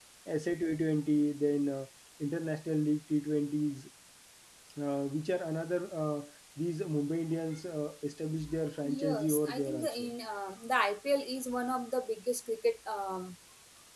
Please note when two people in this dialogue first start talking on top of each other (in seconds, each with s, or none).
8.8 s